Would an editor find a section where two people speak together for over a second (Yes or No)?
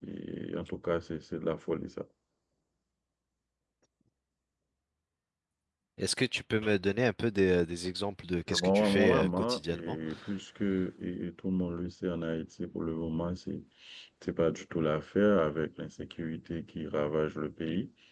Yes